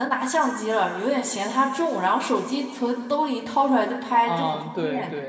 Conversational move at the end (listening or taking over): taking over